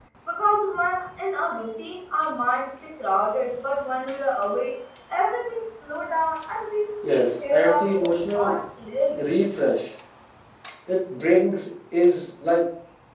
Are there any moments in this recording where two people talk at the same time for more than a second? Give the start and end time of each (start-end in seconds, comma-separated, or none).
7.0-8.5